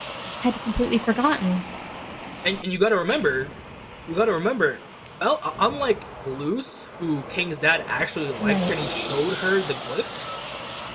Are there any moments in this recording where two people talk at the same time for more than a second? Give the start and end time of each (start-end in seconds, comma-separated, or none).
none